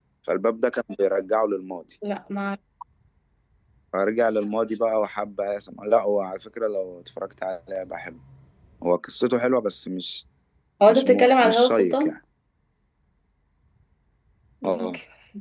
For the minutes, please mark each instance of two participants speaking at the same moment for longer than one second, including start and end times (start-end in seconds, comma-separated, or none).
10.9-12.1